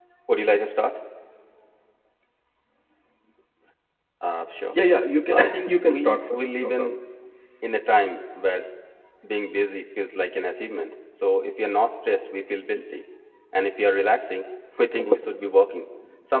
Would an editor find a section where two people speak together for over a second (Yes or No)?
Yes